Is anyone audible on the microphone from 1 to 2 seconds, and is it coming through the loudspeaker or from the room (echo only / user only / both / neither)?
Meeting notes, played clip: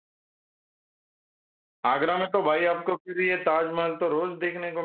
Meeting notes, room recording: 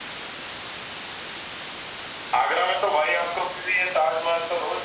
neither